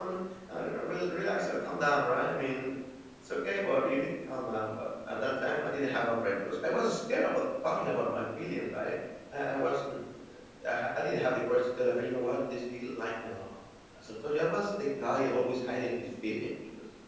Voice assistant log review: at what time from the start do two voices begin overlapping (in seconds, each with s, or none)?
none